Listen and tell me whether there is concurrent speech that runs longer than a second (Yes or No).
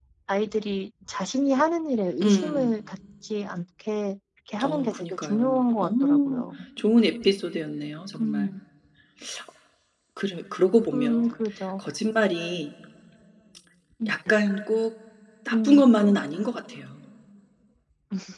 Yes